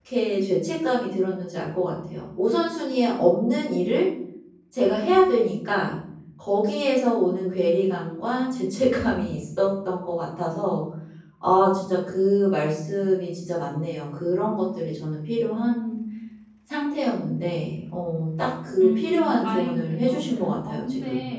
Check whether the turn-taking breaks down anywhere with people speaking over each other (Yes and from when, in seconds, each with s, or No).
Yes, from 18.8 s